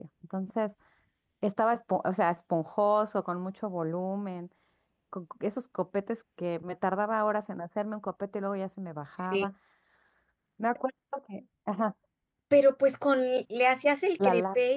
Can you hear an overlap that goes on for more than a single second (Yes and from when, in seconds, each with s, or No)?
No